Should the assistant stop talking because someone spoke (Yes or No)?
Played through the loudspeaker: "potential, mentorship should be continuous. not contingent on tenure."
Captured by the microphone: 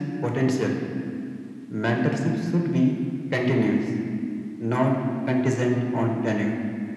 No